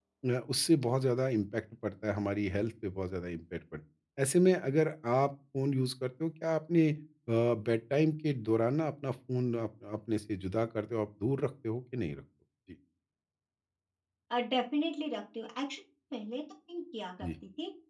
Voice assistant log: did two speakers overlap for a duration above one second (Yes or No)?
No